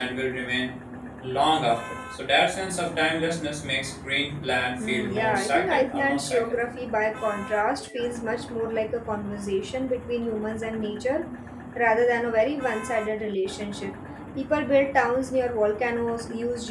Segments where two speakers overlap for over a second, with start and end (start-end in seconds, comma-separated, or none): 4.8-6.4